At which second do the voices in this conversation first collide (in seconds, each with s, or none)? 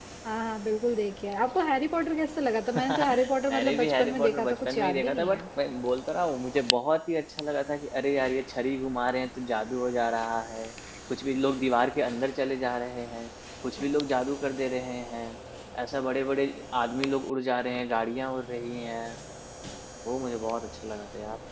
2.8 s